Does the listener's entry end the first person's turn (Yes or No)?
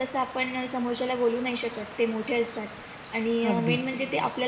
No